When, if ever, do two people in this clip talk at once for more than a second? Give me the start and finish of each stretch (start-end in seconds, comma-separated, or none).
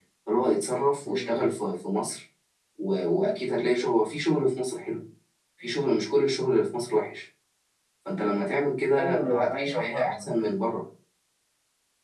9.0-10.3